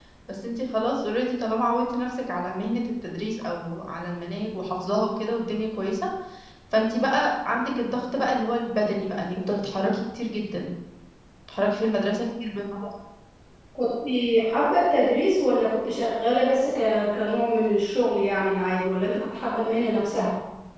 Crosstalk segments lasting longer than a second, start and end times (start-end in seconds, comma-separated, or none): none